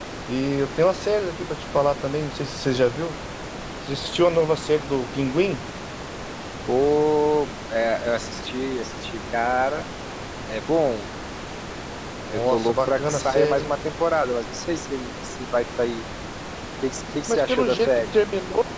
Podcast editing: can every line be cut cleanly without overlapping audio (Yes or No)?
No